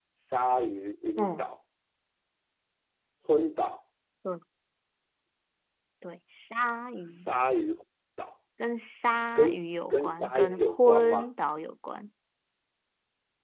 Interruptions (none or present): present